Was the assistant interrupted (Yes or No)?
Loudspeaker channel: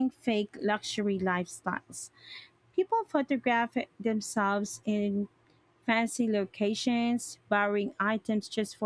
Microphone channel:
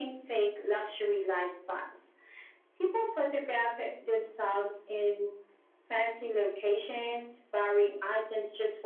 No